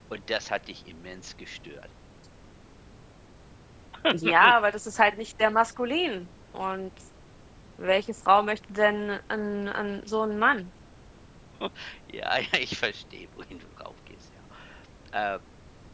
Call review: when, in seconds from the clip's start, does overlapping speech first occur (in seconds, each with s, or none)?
none